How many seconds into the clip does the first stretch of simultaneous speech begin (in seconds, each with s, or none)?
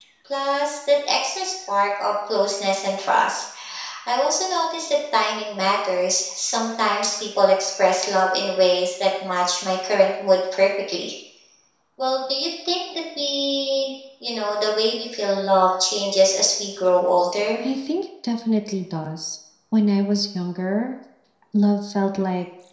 none